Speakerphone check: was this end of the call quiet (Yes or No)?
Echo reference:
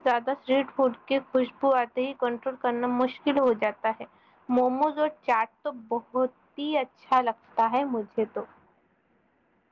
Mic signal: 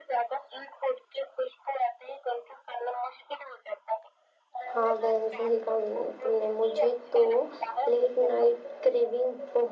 No